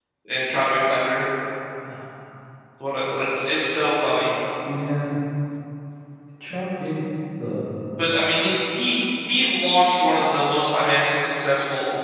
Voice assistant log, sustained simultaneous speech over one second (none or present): none